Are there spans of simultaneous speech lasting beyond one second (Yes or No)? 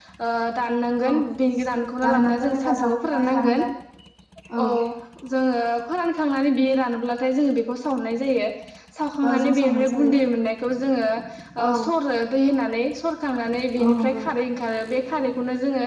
Yes